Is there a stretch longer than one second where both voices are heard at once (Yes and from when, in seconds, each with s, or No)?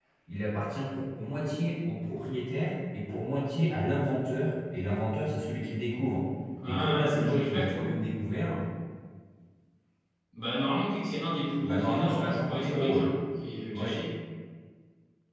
Yes, from 6.6 s